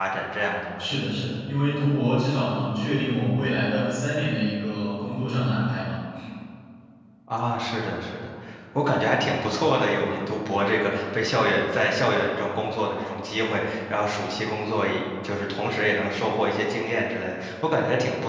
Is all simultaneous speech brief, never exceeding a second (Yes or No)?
Yes